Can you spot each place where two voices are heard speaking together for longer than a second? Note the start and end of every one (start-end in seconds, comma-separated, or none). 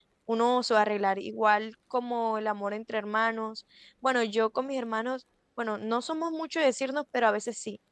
none